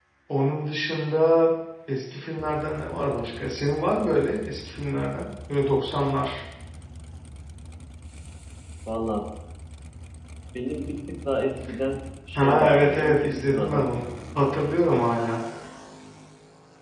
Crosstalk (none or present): present